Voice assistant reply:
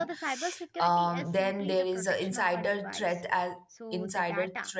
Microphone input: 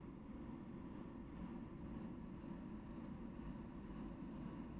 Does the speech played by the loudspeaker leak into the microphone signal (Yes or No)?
No